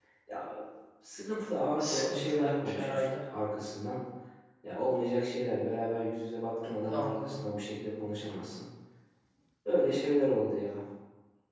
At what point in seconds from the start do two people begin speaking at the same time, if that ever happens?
1.8 s

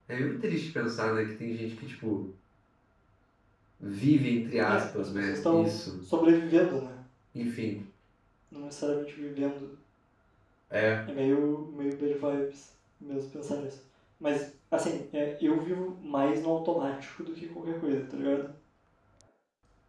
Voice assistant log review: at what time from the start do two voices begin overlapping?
4.7 s

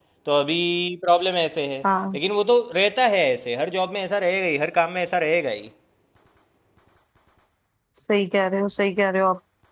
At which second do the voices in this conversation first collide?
none

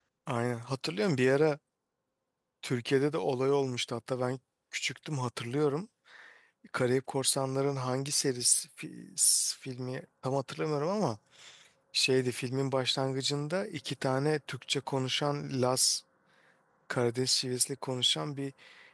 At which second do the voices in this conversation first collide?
none

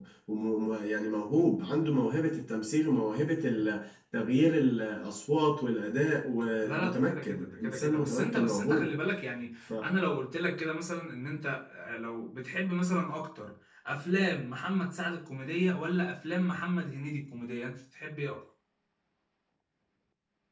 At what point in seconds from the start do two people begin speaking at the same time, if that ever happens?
6.6 s

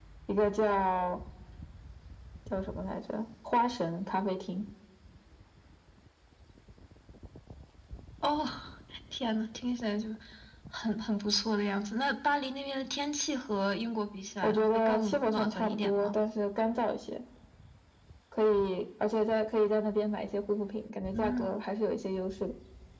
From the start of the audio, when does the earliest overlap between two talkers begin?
14.4 s

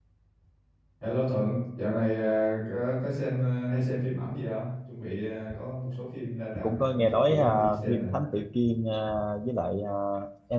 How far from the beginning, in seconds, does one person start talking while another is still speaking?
6.5 s

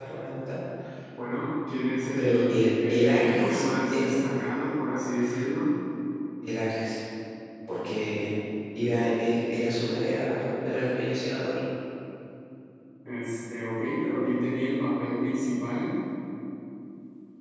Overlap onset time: 2.2 s

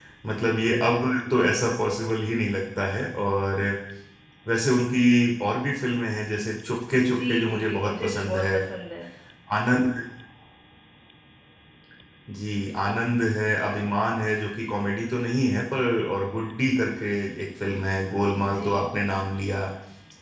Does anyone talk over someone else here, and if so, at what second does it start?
6.9 s

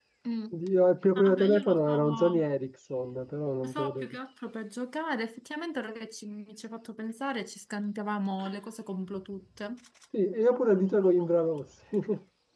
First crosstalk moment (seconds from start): 1.2 s

